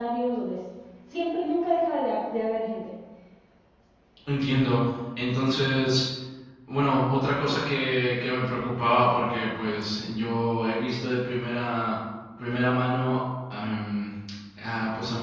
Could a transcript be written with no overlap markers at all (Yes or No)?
Yes